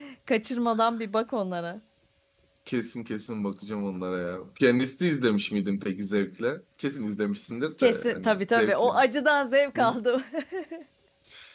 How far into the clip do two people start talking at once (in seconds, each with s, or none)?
7.8 s